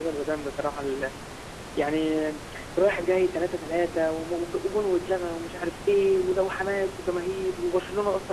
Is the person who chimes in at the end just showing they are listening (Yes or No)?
No